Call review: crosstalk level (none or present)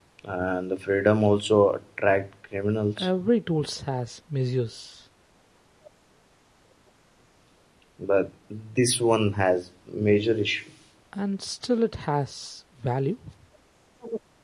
none